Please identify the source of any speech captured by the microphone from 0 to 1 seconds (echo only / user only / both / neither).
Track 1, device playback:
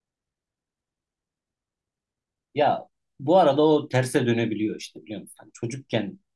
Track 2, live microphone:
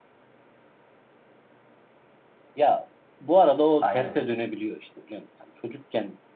neither